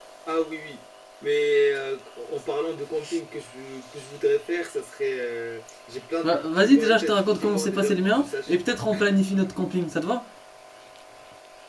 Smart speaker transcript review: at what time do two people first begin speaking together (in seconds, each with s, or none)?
6.2 s